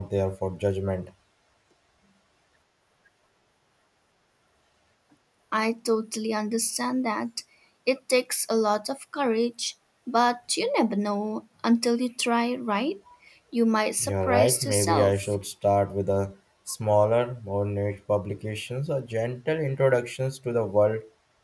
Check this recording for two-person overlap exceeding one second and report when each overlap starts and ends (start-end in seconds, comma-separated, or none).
14.0-15.3